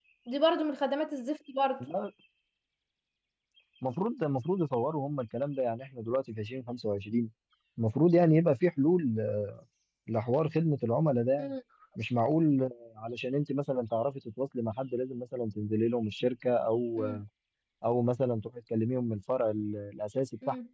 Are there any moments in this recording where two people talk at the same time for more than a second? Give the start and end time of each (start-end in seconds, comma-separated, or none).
none